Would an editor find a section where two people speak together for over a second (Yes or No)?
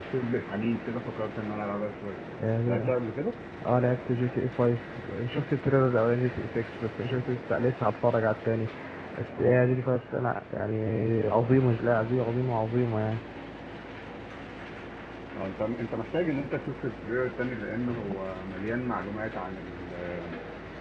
No